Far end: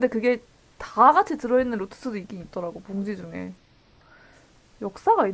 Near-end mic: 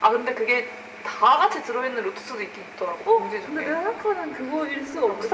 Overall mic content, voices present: both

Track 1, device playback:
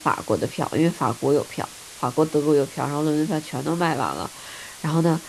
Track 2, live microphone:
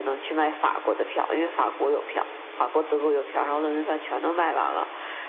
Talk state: echo only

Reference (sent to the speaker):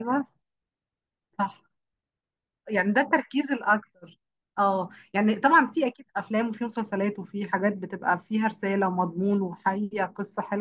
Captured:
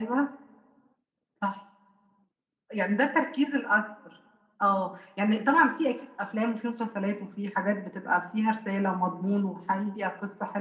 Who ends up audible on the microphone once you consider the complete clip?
echo only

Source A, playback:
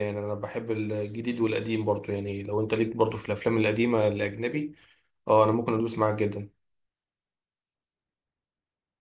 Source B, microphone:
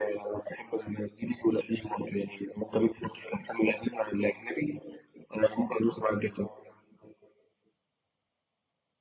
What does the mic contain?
echo only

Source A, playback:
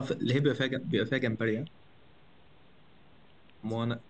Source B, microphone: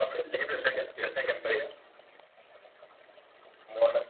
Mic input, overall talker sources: echo only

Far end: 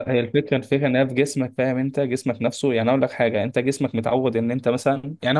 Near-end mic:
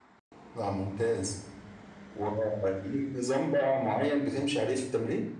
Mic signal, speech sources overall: user only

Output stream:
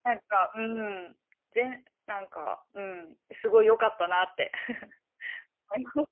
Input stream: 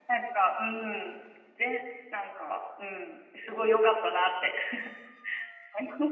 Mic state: echo only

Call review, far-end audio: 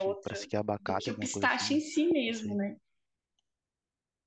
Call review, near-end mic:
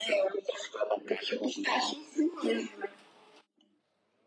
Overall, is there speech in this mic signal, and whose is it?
echo only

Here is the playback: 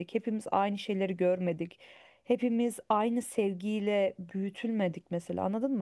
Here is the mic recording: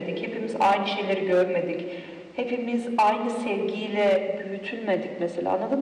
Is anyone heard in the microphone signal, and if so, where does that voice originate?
echo only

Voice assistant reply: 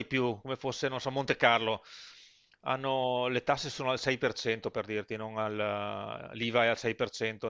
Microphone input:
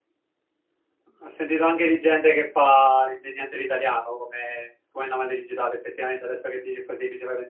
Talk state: user only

